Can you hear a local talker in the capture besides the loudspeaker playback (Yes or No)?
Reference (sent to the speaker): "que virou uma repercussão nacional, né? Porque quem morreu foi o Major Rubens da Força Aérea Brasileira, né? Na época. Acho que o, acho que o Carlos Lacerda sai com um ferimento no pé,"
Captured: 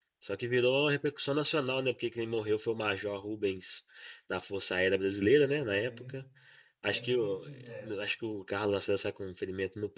Yes